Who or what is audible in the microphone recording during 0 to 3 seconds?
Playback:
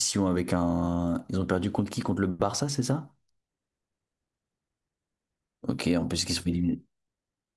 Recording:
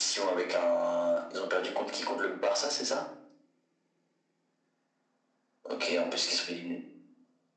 echo only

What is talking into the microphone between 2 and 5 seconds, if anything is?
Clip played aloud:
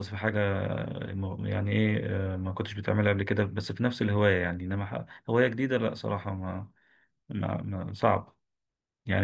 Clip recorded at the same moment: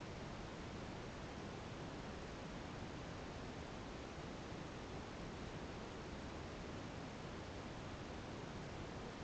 neither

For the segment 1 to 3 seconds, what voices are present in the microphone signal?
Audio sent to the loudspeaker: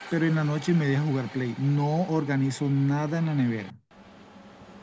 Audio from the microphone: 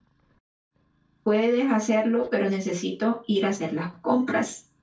user only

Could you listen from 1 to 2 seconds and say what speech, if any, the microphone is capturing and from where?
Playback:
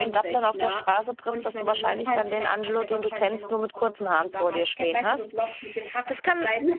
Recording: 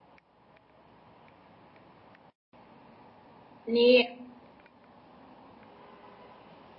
neither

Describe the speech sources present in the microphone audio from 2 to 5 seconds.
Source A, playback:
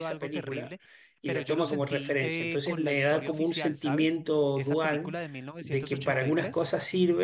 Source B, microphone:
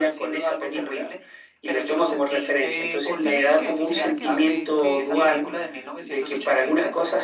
both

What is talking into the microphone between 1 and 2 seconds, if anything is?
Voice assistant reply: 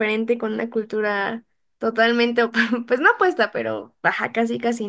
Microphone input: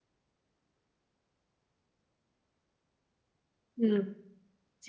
neither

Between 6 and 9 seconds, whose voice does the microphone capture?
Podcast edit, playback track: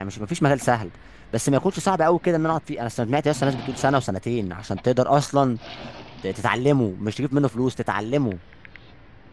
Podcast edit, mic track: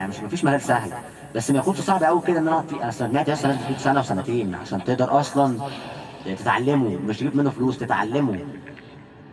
echo only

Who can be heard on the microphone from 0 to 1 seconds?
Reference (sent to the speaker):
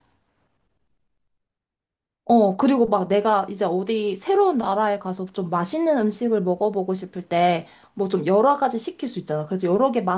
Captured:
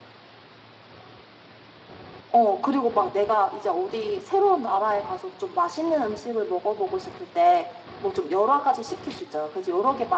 neither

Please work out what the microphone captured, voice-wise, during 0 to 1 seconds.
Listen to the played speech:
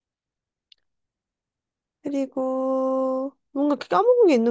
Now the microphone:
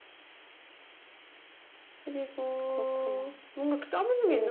neither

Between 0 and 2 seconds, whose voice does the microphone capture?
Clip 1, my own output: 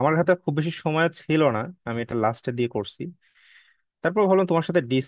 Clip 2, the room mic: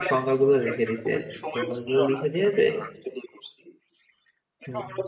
both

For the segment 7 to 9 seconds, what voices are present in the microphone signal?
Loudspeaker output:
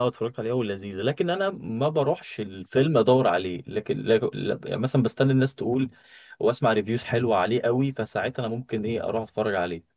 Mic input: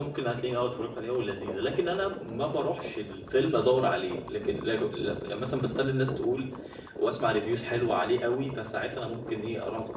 echo only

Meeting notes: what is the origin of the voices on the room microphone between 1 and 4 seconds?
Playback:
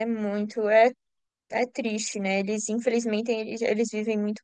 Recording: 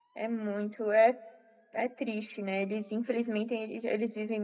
echo only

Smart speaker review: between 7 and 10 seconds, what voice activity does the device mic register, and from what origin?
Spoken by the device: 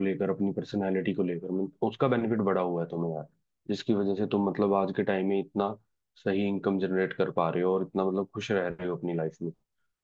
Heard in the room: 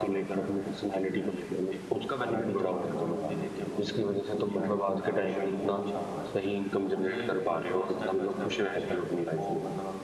both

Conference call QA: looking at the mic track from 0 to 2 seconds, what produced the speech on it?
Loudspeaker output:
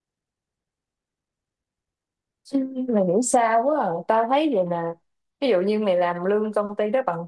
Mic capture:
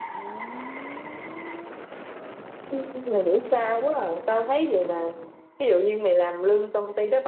neither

